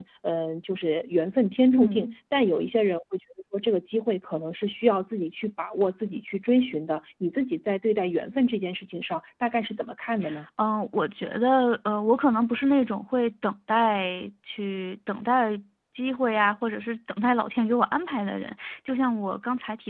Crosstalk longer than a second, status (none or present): none